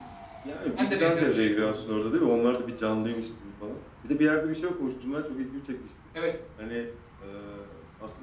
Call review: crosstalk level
present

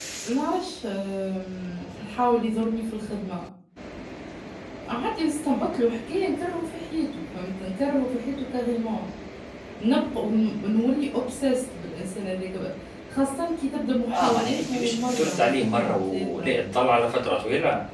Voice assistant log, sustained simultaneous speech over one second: present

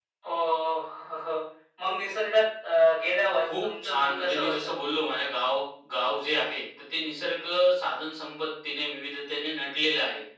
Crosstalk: present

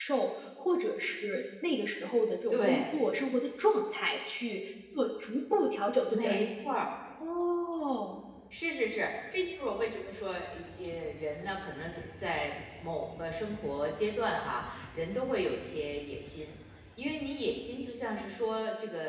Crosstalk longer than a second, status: none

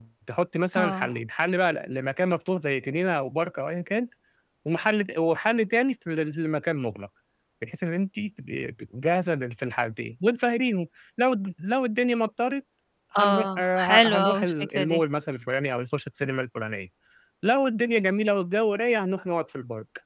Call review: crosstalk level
present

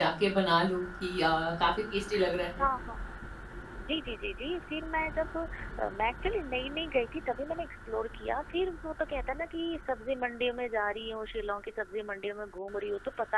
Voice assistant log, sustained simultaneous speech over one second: none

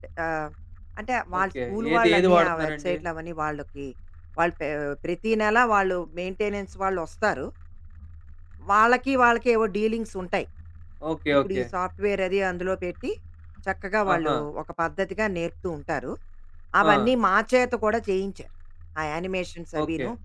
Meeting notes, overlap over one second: present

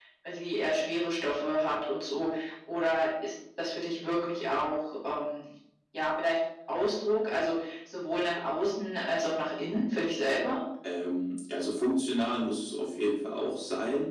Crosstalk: none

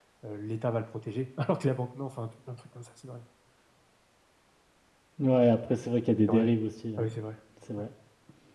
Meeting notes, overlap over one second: none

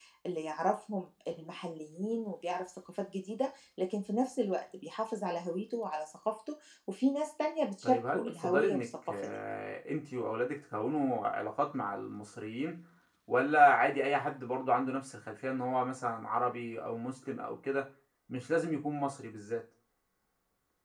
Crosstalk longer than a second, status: present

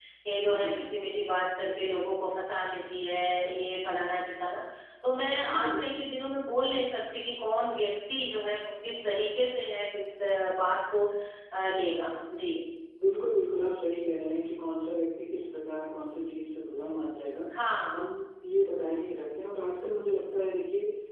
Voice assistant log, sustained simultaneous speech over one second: none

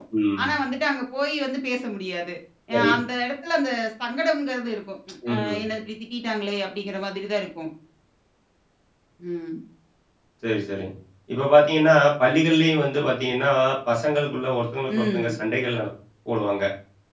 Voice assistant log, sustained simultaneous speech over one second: none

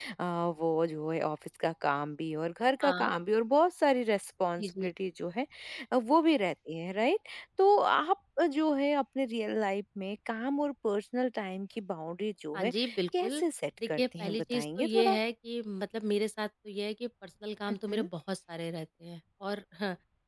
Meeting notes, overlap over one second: present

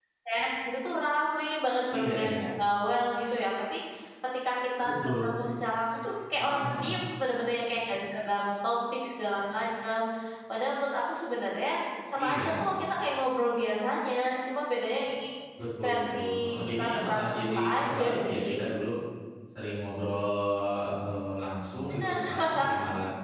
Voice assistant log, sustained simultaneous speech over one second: present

